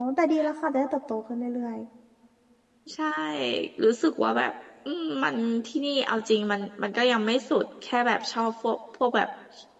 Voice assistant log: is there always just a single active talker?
Yes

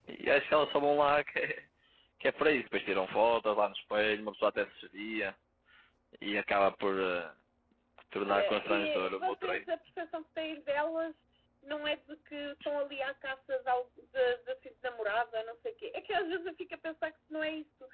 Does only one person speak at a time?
No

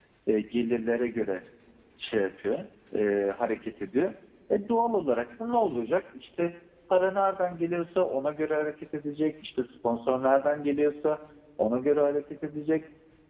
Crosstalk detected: No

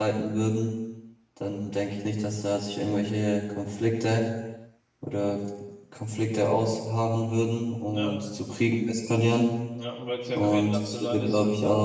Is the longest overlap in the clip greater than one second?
Yes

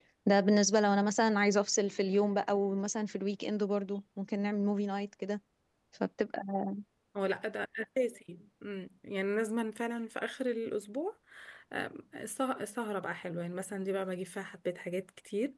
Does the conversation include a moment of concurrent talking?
No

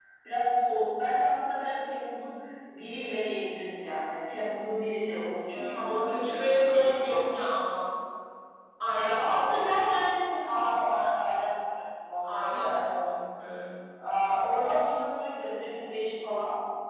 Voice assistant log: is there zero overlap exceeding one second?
No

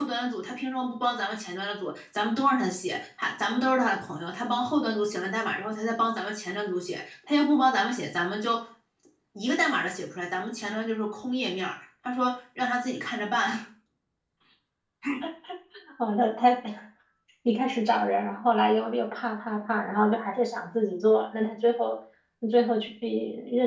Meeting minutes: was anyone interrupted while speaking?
No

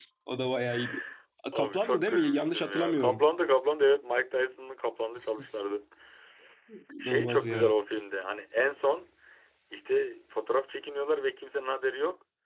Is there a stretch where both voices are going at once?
Yes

